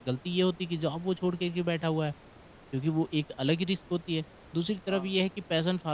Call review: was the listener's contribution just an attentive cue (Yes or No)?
Yes